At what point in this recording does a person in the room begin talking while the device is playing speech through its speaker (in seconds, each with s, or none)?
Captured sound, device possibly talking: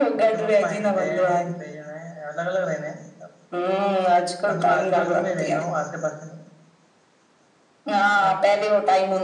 none